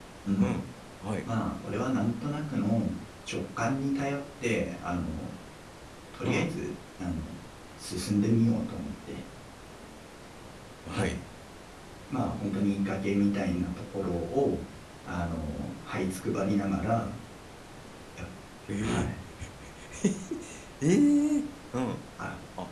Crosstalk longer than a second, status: none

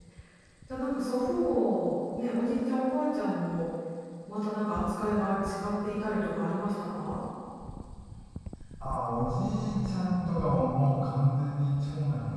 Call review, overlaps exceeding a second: none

